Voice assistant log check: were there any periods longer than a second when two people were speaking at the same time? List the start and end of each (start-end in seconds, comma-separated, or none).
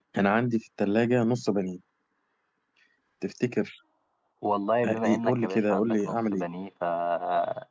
4.8-6.5